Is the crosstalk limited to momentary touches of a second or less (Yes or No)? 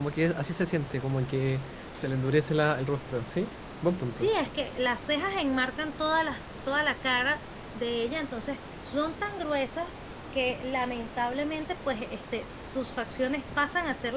Yes